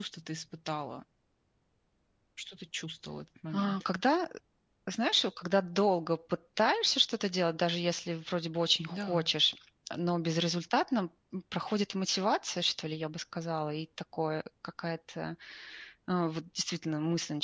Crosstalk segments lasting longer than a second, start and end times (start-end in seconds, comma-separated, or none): none